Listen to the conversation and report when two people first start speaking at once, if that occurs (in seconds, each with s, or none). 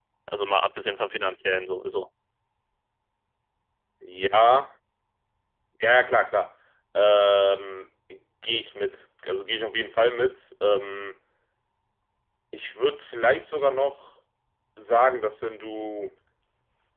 none